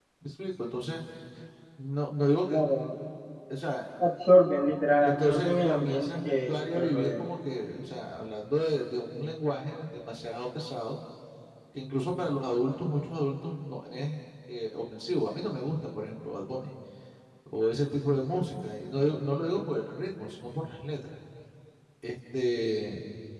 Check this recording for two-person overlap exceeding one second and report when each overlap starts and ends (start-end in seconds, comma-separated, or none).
5.0-7.3